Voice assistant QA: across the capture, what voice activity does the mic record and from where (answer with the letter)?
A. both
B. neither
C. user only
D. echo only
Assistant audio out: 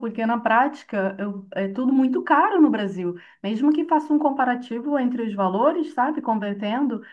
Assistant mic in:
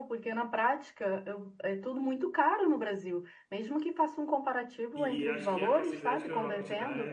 A